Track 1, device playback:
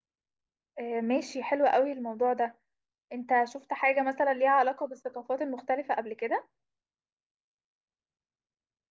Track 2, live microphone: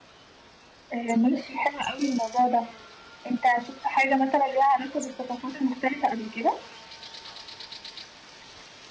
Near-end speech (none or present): none